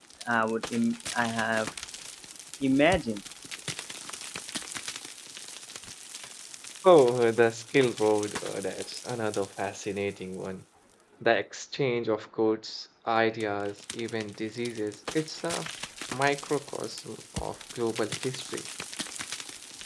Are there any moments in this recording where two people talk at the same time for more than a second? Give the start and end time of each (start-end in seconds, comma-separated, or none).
none